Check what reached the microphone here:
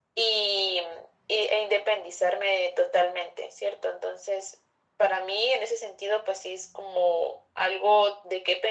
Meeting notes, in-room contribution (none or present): none